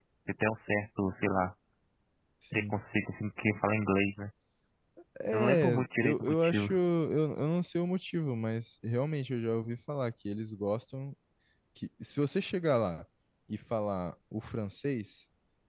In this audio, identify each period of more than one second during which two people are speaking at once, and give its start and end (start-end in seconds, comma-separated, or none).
5.3-6.7